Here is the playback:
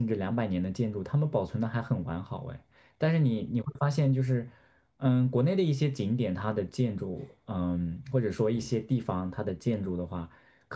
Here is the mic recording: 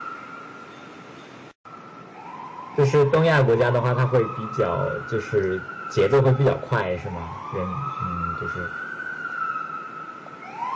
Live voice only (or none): 就是东亚国家的话，它会比较就是节奏会比较快，是吗？人嗯，就是